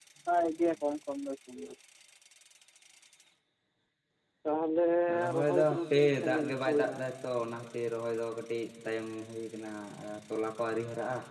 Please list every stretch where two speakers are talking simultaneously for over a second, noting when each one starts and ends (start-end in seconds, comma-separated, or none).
5.4-7.0